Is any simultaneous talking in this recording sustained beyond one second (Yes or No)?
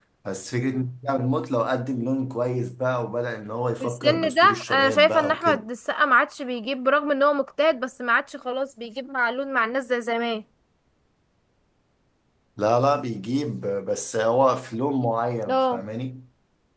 Yes